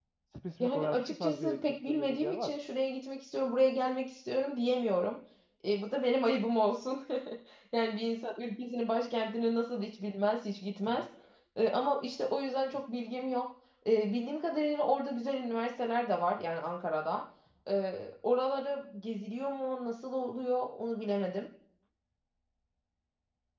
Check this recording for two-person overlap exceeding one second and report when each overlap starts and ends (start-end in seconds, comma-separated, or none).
0.6-2.5